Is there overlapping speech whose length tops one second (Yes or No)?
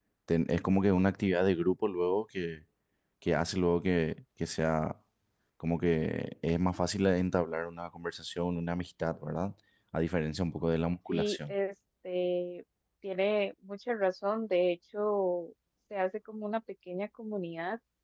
No